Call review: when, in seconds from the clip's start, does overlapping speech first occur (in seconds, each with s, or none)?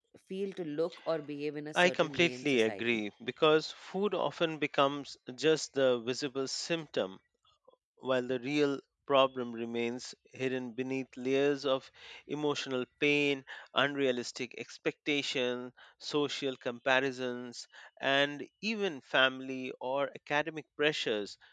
1.8 s